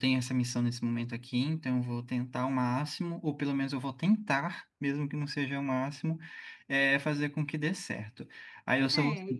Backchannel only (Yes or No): Yes